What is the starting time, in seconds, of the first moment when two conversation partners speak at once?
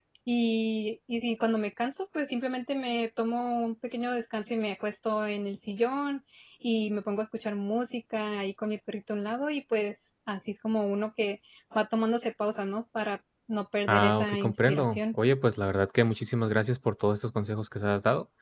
13.9 s

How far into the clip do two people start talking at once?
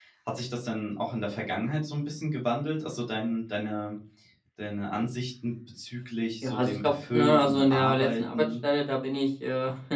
6.4 s

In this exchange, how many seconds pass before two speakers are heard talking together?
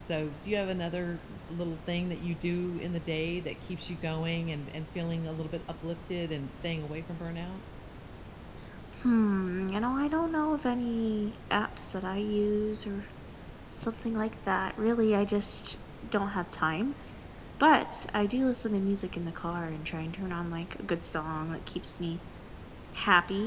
none

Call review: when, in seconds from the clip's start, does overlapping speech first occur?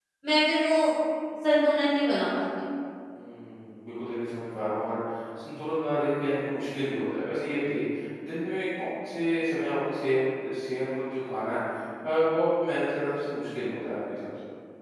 none

